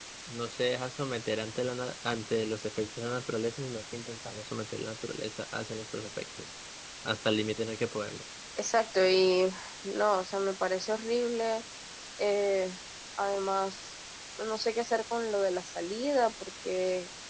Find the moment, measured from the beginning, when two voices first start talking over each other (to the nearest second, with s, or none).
none